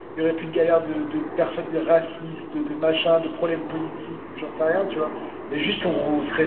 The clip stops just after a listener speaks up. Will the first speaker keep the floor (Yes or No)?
Yes